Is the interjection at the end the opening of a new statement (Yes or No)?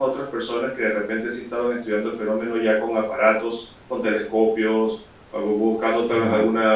No